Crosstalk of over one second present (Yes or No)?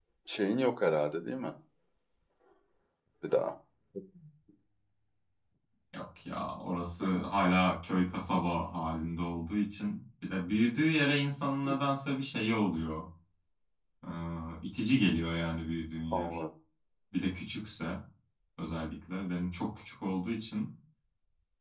No